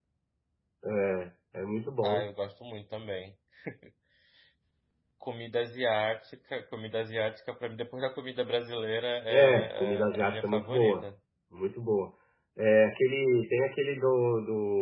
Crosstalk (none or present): present